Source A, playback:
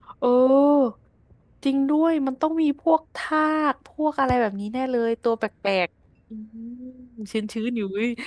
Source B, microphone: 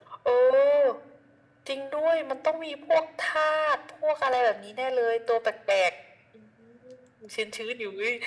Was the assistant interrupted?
No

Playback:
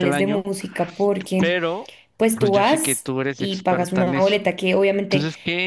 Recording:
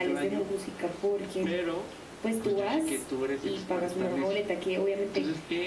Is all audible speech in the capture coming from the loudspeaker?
Yes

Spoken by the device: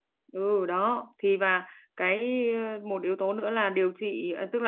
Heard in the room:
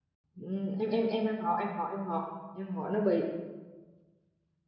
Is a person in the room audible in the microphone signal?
Yes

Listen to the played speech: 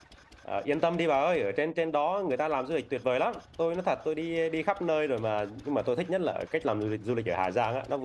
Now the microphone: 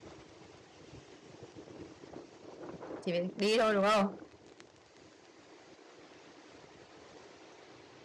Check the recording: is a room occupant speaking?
Yes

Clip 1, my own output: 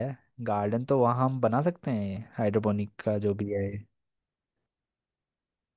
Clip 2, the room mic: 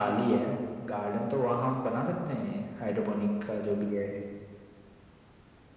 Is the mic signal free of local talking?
Yes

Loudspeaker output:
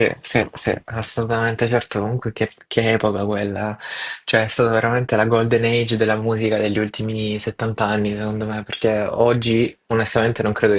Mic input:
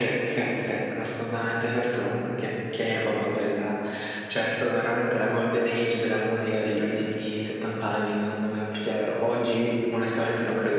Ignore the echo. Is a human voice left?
No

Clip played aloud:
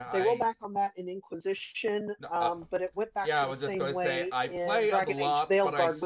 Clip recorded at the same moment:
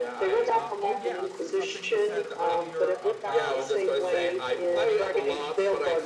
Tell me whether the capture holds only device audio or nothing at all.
No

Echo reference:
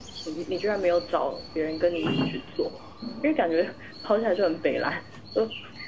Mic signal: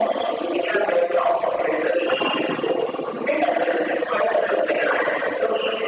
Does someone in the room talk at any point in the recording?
No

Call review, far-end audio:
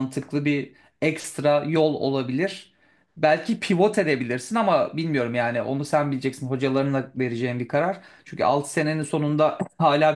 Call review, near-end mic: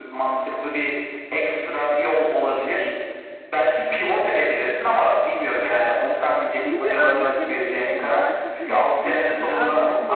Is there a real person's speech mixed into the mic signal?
Yes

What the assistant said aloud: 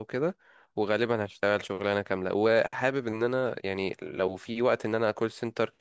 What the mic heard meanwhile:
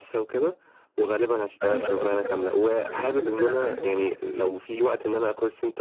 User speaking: Yes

